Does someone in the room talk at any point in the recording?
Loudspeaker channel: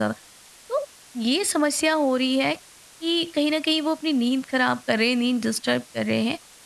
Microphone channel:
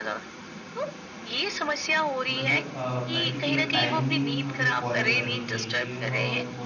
Yes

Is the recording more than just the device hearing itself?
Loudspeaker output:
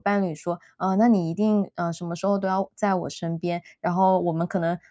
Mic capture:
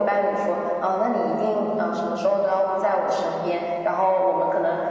No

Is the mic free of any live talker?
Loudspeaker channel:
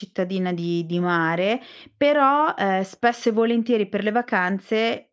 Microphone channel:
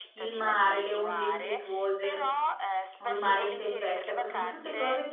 No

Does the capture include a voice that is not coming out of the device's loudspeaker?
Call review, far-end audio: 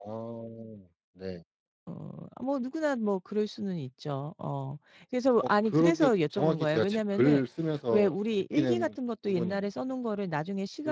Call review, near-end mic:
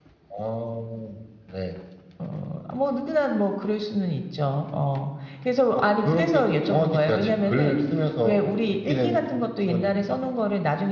No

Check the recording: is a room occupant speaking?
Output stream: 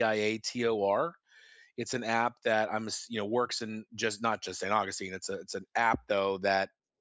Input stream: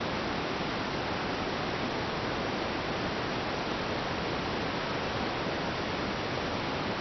No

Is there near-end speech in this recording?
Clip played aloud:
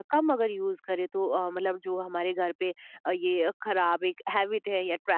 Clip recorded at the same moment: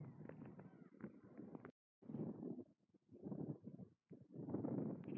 No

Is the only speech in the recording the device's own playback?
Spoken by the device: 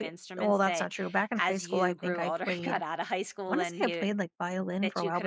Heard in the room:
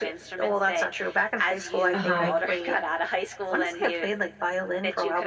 No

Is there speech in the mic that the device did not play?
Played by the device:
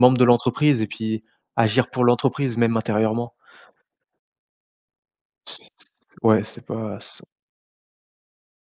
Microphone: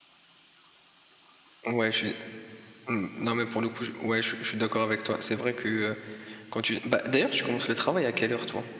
Yes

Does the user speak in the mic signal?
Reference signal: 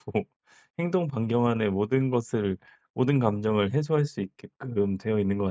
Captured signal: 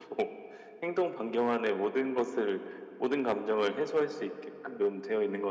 No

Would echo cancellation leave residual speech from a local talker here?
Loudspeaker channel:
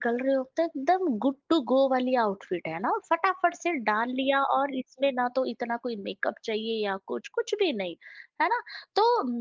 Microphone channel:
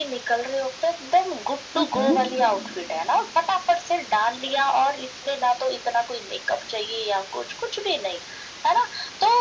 Yes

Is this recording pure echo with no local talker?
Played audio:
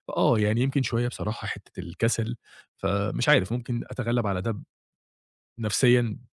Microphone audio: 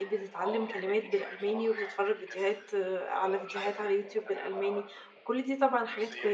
No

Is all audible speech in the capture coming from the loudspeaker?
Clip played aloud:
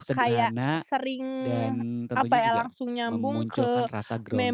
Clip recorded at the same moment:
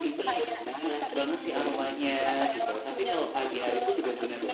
No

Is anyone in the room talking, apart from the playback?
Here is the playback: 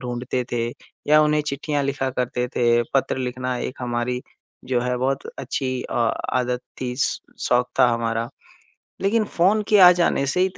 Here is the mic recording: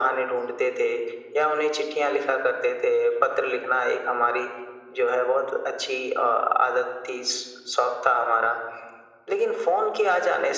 No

